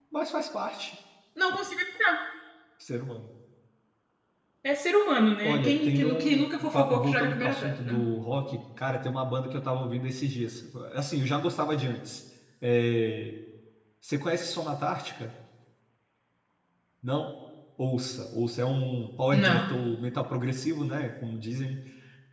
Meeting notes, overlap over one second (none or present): present